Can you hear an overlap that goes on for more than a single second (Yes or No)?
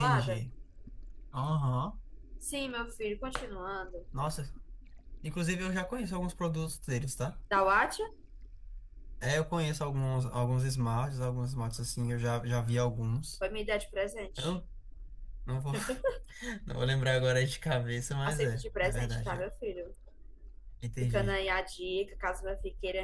Yes